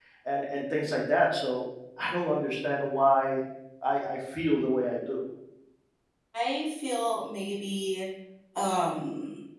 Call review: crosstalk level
none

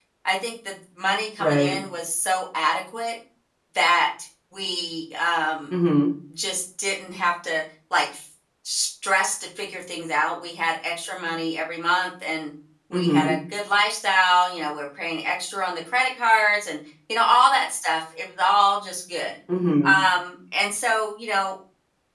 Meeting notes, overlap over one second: none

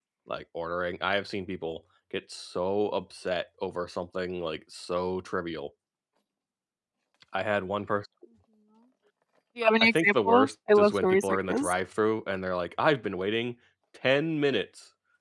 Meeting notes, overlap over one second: present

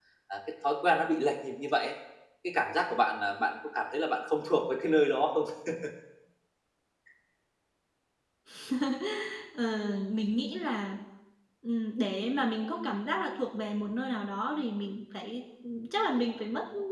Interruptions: none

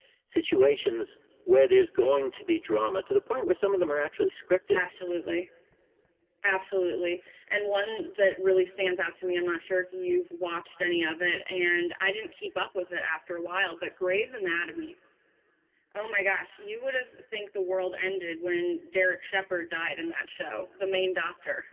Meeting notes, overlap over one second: none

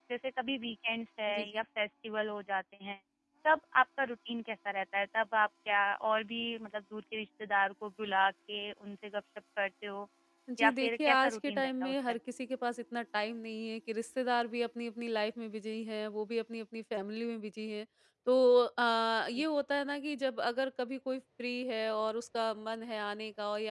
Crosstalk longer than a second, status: present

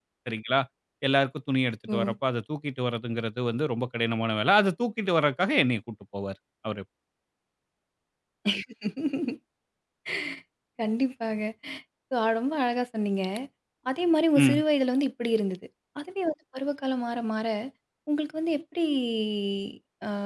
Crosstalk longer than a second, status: none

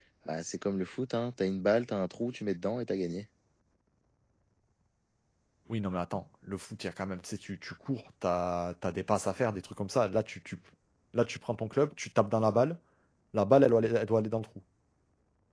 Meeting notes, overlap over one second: none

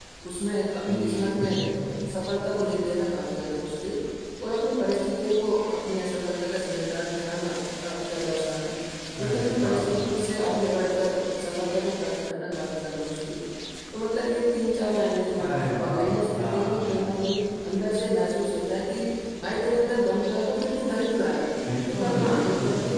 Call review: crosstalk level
present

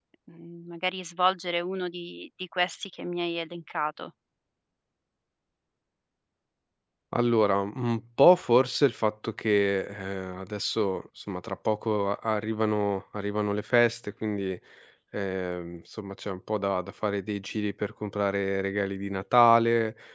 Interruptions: none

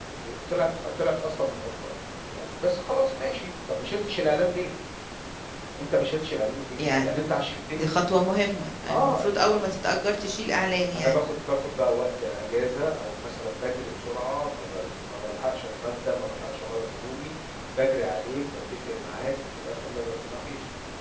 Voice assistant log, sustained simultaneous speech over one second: none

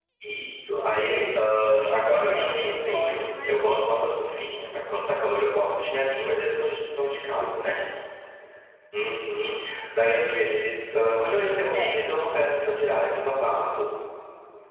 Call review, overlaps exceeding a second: present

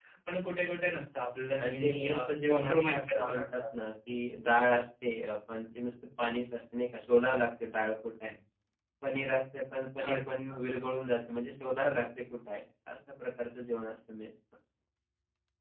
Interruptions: present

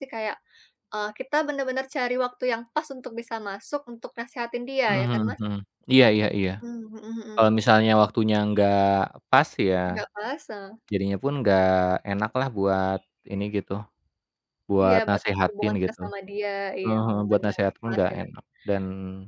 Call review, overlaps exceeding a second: present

